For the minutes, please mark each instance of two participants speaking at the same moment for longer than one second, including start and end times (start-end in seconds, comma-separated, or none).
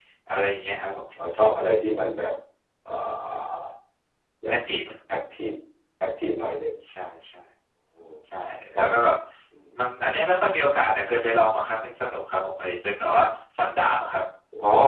none